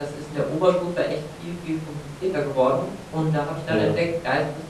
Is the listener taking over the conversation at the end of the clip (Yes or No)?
No